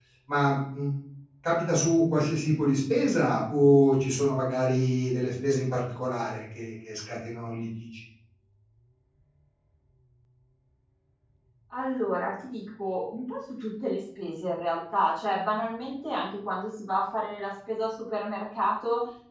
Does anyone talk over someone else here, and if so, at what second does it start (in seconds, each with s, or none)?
none